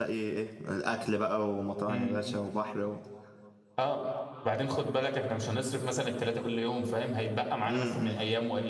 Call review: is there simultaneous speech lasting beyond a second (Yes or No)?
No